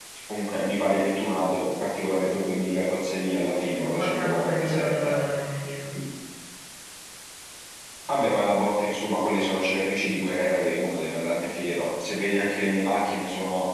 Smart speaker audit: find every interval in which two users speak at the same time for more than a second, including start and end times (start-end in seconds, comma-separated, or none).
3.8-5.2